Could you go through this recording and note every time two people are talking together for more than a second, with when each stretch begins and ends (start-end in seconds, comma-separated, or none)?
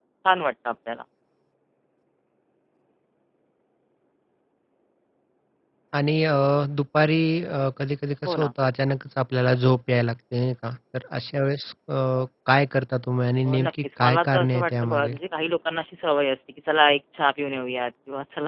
13.4-15.1